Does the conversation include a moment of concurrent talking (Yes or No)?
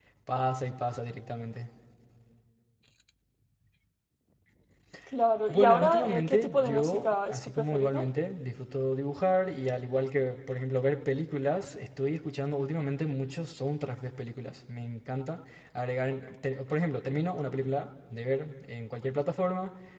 Yes